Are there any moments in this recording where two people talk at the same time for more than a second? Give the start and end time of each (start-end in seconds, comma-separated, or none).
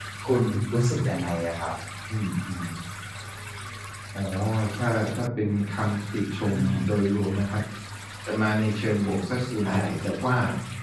none